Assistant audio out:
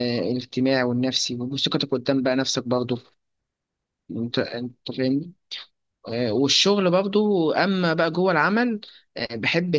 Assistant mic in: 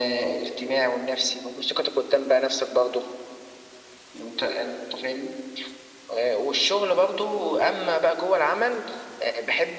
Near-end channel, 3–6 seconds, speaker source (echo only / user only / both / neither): echo only